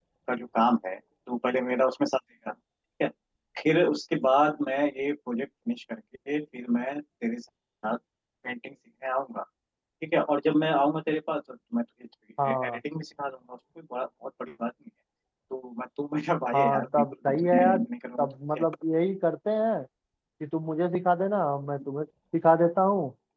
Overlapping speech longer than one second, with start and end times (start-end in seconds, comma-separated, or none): 16.6-17.8